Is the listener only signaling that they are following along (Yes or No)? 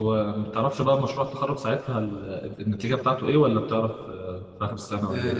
No